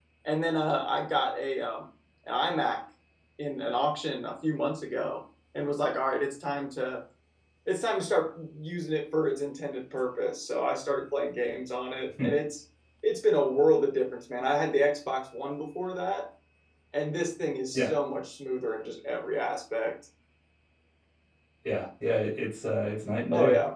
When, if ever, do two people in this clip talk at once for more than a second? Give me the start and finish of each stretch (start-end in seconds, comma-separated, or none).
none